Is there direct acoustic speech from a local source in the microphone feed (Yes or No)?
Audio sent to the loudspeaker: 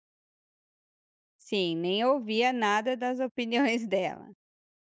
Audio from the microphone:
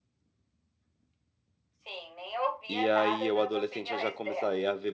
Yes